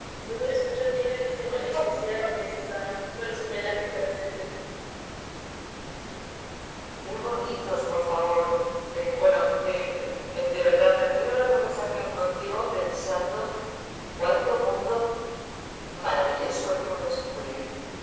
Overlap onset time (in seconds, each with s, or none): none